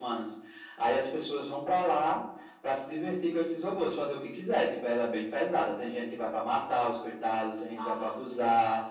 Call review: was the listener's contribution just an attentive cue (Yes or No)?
Yes